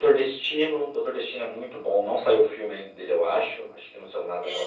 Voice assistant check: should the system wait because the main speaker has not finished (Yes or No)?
No